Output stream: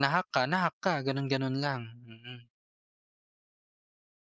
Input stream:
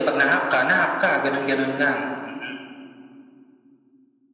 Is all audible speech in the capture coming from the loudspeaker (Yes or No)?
Yes